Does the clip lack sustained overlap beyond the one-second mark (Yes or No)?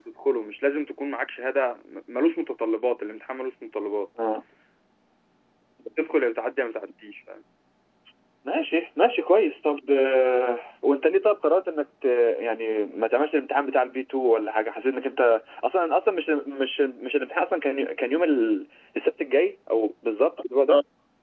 Yes